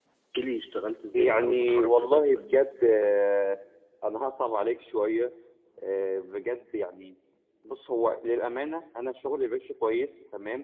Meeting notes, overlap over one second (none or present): present